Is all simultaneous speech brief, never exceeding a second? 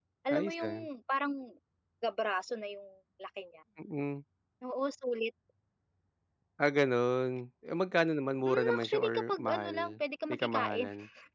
No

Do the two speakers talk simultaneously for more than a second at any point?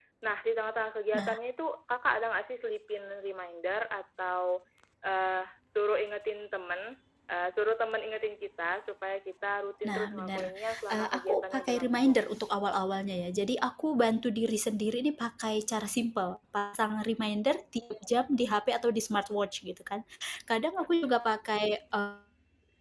Yes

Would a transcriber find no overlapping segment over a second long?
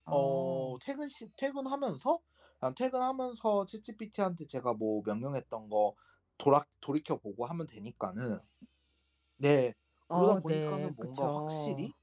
No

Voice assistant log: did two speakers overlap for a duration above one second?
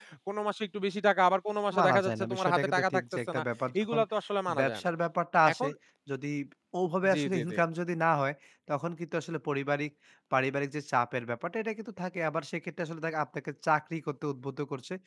Yes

